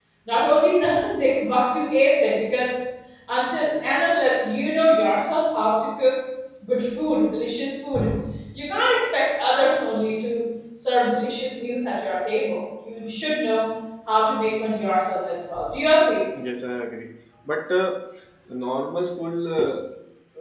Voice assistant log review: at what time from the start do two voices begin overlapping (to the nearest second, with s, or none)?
none